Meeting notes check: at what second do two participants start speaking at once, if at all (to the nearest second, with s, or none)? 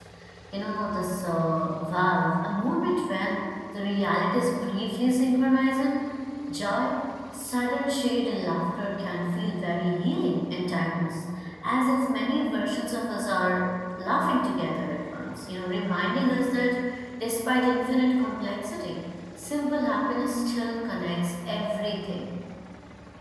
none